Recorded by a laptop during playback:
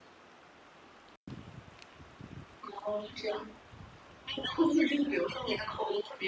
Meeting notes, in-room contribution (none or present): none